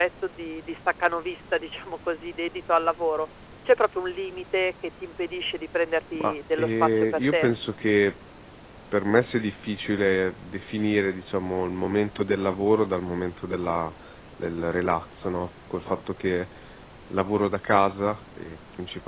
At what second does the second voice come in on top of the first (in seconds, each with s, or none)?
6.2 s